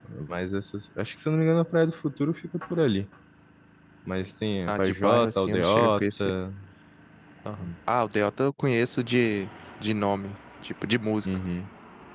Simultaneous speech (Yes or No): Yes